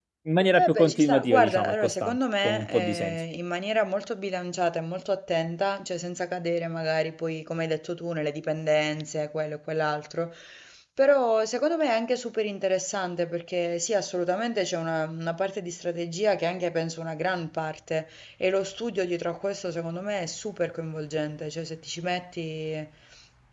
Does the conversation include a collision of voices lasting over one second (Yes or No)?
Yes